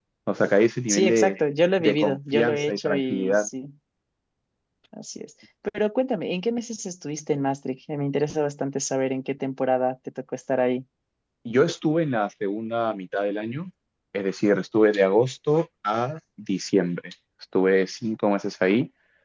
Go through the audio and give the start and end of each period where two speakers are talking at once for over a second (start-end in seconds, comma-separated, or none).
1.8-3.5